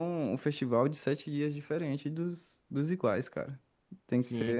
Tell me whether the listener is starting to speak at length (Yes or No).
Yes